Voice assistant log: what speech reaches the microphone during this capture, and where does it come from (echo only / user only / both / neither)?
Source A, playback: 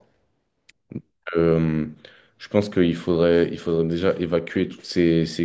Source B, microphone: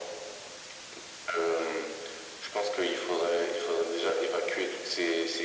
echo only